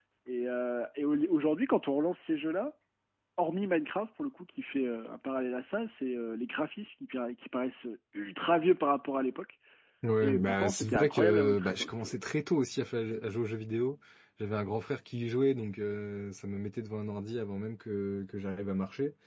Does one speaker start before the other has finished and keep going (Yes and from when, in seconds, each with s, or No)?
Yes, from 10.2 s